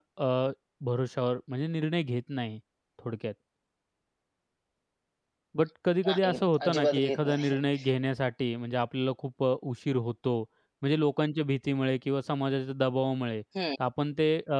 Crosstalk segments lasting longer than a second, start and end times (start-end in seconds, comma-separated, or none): 6.1-7.6